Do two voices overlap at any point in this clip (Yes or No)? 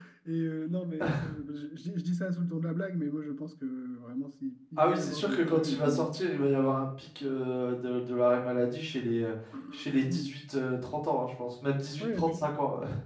Yes